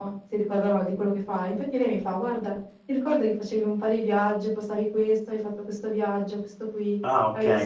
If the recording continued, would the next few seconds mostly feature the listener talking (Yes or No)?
No